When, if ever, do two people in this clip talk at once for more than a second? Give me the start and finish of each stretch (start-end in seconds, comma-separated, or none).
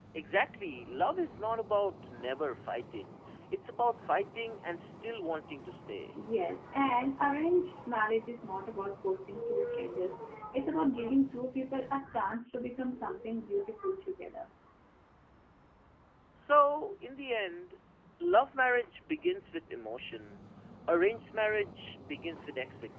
none